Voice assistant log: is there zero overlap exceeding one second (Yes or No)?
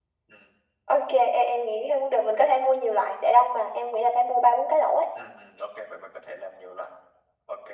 Yes